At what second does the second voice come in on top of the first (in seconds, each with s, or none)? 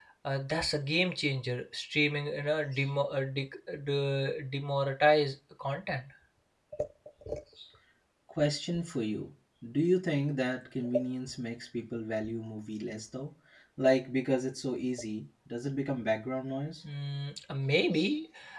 none